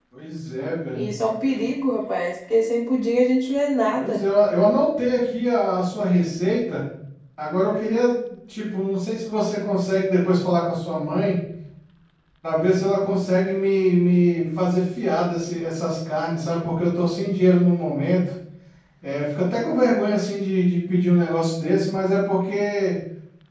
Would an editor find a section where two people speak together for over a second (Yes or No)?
No